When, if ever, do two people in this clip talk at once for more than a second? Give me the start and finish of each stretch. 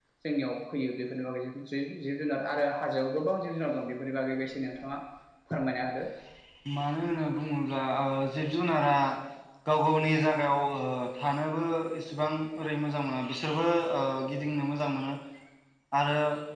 none

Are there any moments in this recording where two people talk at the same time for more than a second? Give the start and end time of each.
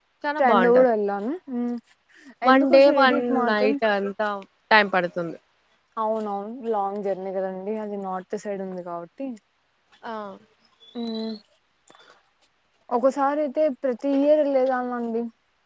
2.5-3.7

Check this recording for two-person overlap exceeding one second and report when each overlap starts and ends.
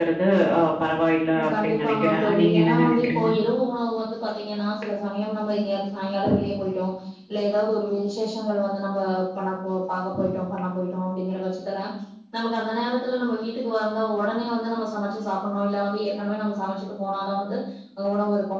1.6-3.3

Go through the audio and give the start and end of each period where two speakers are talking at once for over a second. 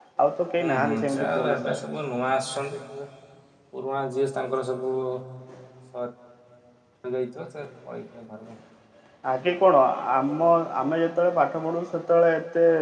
0.6-1.8

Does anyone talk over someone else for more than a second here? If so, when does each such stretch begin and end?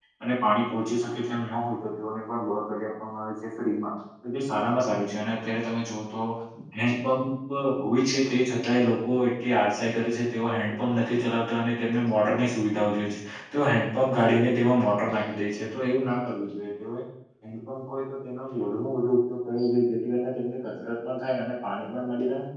none

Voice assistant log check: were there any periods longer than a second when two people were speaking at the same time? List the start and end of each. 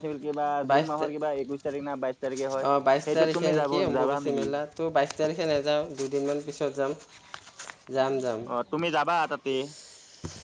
3.1-4.4

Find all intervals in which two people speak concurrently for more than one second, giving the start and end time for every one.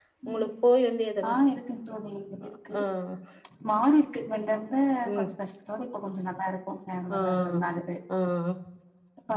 none

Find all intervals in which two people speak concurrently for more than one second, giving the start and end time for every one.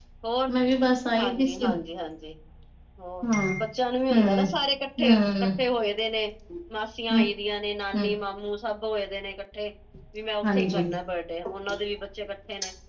none

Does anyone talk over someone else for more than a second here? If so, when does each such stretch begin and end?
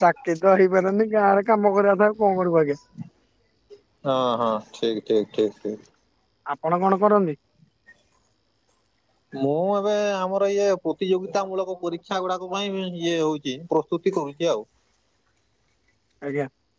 none

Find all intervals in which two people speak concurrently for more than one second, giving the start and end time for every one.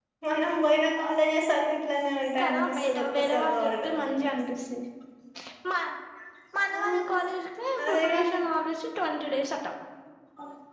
2.4-3.9

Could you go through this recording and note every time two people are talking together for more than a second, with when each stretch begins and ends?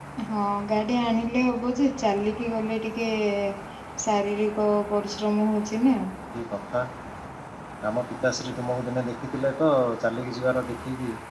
none

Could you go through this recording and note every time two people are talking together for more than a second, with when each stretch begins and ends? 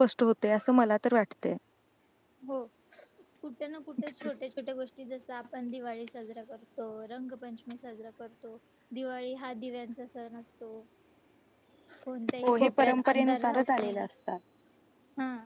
12.4-14.0

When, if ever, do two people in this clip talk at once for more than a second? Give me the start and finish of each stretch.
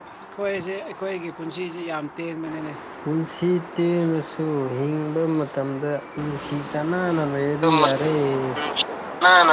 none

